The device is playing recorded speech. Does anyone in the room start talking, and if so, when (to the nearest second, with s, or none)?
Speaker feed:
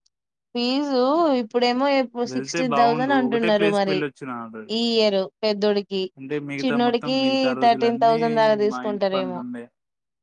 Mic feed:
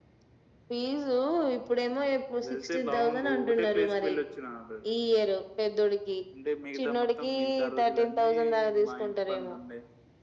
none